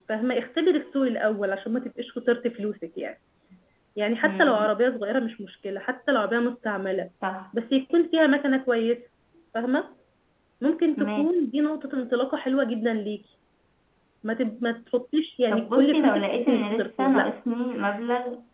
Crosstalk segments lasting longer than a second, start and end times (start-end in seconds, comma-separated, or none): 15.5-17.3